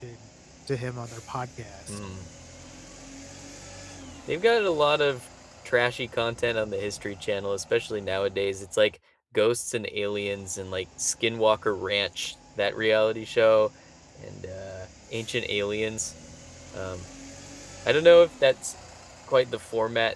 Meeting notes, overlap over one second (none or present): none